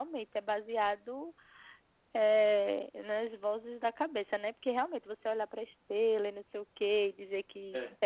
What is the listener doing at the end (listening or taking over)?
listening